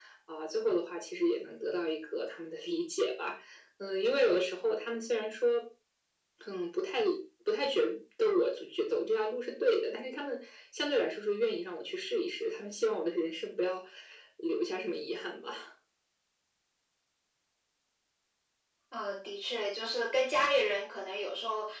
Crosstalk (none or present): none